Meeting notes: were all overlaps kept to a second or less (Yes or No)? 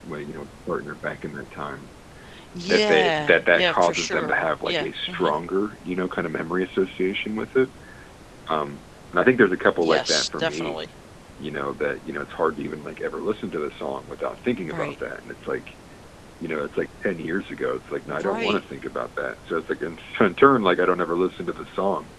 No